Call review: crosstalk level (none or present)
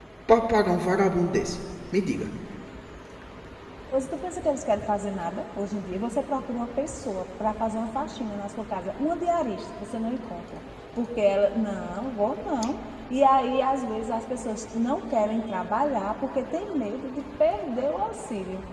none